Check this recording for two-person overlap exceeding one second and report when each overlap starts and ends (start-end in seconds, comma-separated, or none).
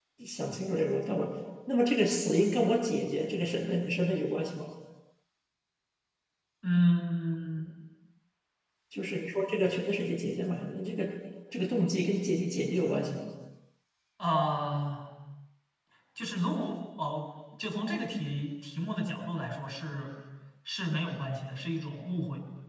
none